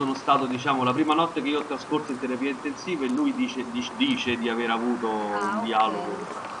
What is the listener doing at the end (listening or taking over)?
taking over